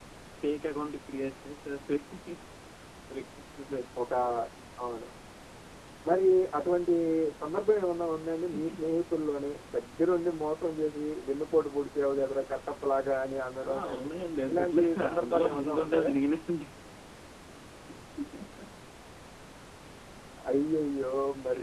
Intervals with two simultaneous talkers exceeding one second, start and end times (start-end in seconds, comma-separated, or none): 14.5-16.1